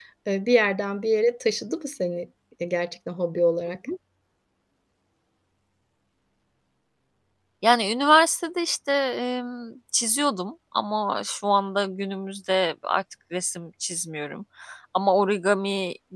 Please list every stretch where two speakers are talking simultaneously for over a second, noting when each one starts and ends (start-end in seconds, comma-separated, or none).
none